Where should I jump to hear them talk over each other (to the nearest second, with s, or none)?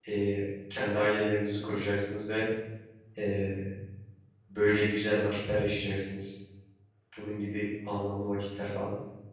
none